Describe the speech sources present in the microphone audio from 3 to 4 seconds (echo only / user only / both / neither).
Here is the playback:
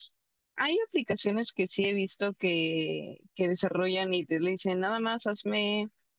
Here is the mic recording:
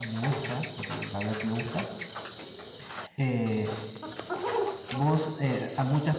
user only